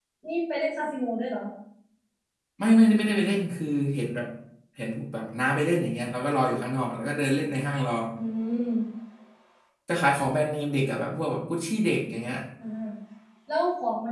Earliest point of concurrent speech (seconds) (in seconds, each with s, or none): none